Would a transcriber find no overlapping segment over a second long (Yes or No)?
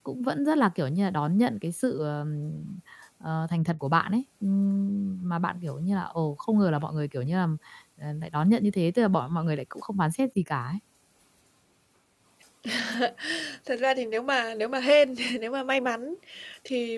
Yes